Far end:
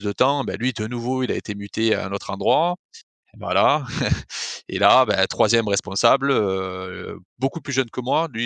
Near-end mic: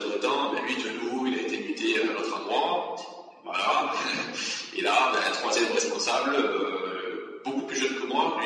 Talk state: echo only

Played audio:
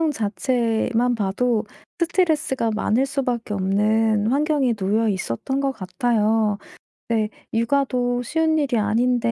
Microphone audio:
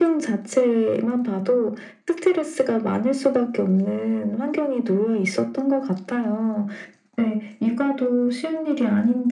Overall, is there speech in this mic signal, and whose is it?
echo only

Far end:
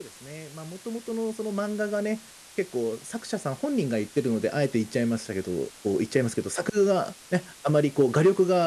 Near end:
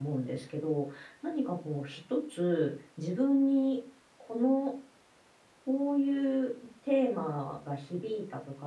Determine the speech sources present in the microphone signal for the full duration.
user only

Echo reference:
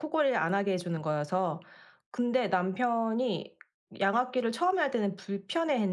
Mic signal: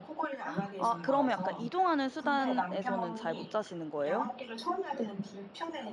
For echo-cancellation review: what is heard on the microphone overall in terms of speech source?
both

